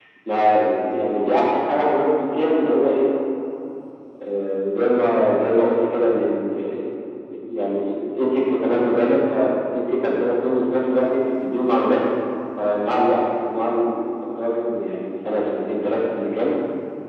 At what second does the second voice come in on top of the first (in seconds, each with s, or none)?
none